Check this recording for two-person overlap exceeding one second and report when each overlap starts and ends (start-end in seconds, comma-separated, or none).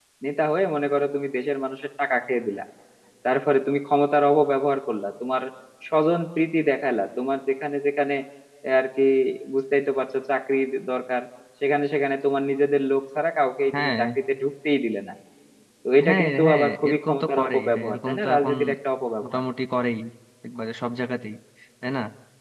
16.0-18.5